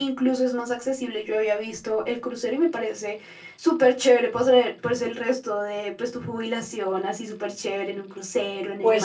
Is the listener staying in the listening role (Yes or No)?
No